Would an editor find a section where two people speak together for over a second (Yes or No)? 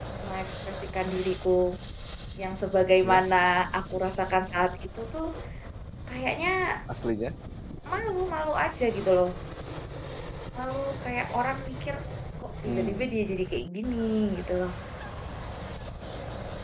No